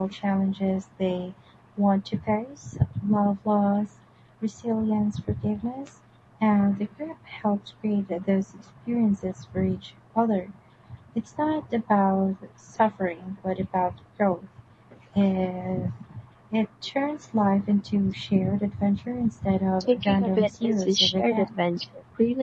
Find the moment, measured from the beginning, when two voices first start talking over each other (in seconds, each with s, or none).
19.8 s